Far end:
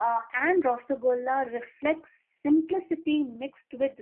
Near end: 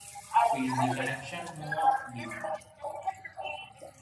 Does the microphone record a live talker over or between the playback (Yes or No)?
Yes